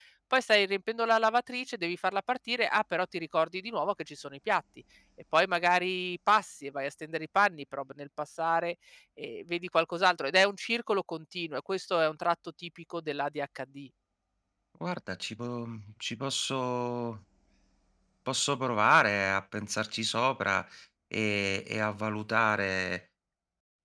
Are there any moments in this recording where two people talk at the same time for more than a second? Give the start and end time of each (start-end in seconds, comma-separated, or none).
none